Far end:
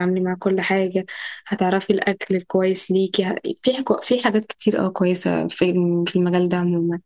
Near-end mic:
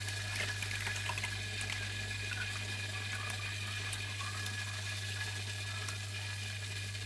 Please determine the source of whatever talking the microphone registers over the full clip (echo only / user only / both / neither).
neither